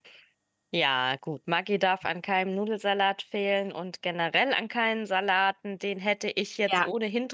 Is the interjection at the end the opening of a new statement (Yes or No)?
No